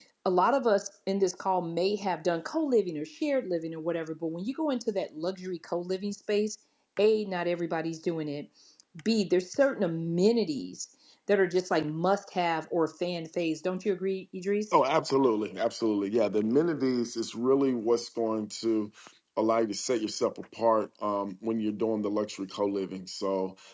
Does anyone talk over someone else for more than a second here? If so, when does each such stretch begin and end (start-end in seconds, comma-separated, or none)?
none